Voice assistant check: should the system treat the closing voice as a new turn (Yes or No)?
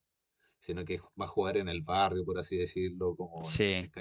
No